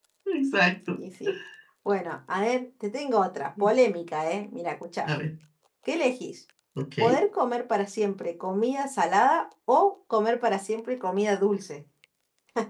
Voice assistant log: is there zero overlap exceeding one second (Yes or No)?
Yes